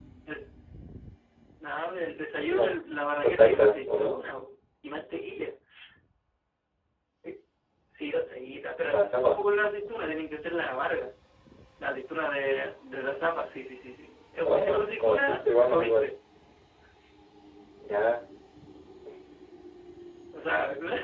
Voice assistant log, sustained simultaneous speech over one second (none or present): present